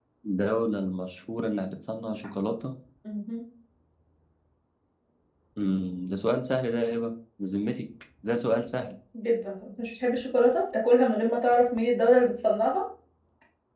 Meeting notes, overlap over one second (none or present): none